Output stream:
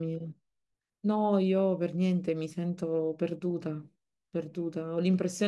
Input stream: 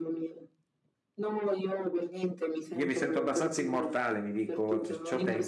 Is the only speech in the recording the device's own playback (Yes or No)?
No